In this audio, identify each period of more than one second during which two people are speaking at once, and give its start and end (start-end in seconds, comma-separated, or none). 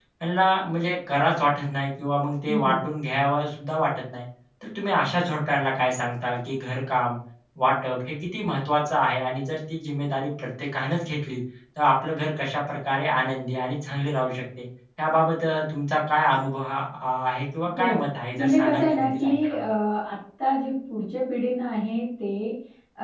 18.4-19.6